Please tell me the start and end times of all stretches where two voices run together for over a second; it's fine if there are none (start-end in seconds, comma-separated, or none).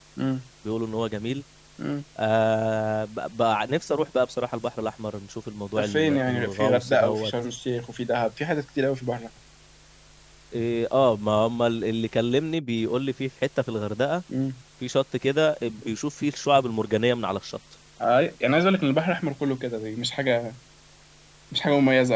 5.8-7.3